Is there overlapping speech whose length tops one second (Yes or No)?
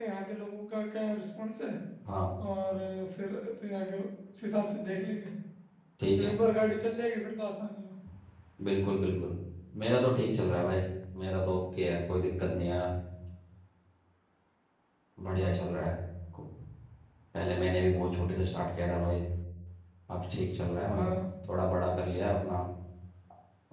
No